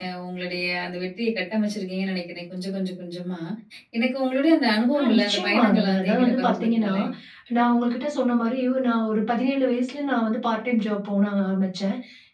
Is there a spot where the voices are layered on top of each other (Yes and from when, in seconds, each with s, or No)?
Yes, from 4.9 s